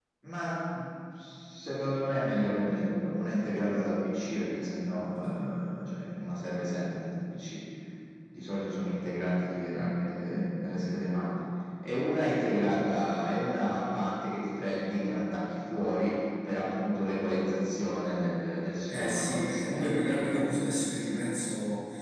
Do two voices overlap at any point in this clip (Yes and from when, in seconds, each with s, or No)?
Yes, from 18.9 s